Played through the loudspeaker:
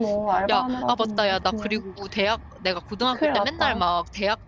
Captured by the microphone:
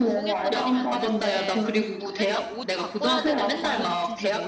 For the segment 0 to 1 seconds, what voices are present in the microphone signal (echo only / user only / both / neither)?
both